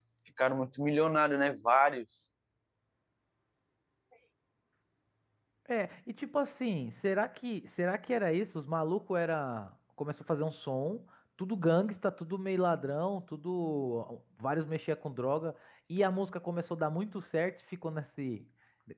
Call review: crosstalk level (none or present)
none